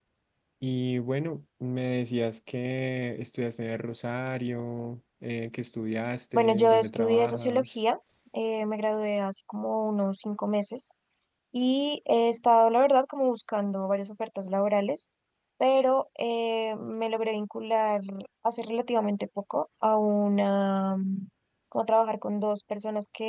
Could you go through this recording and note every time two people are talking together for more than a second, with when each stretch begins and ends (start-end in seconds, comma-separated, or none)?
6.3-7.7